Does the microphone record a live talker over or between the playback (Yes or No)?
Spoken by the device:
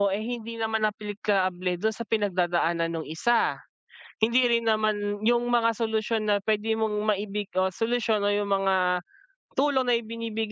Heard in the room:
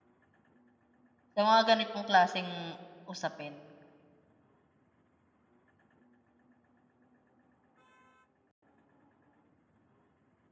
Yes